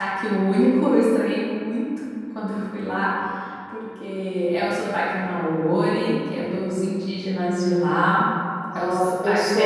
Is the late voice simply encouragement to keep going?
No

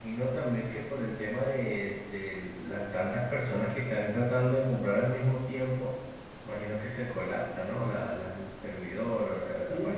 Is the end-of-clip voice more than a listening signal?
Yes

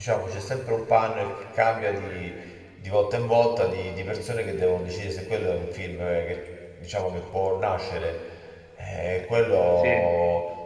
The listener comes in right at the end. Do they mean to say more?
No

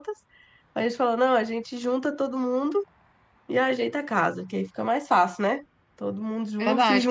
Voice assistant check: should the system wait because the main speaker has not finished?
No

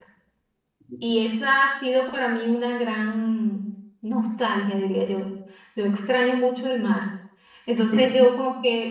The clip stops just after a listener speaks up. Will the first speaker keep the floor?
Yes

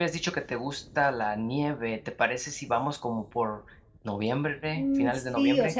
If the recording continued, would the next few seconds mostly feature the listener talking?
Yes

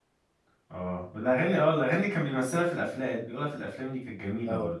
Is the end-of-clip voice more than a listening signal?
Yes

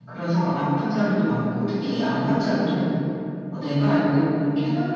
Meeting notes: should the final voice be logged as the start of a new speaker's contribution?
No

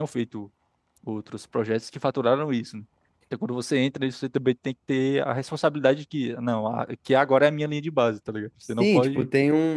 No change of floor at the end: No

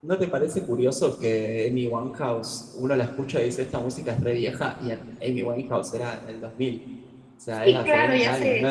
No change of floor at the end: No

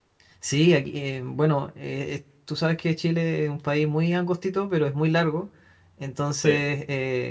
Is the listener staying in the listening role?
Yes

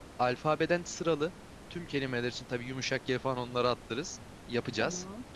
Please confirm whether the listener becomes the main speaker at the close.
No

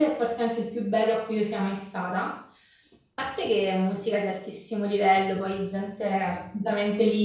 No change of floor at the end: Yes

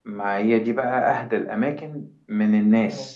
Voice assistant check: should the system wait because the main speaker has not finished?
Yes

